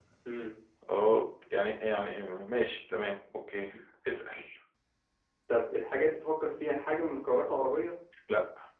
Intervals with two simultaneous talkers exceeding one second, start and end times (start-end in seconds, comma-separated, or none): none